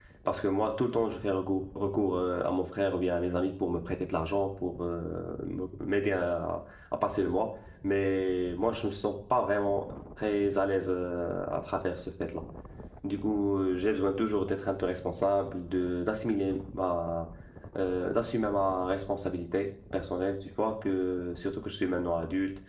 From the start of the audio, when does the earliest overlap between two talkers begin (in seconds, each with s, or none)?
none